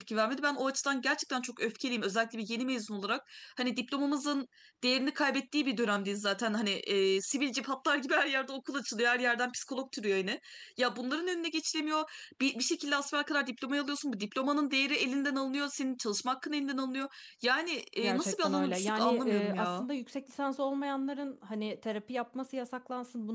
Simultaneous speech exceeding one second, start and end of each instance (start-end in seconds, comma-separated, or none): 18.0-19.9